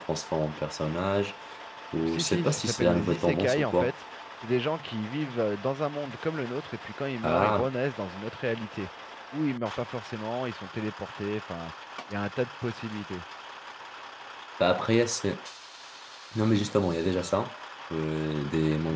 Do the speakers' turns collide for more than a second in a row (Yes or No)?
Yes